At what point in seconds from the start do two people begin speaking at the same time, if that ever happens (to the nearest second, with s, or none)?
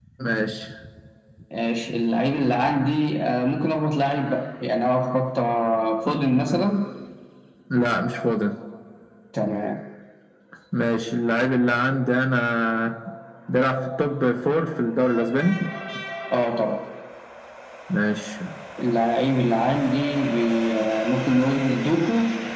none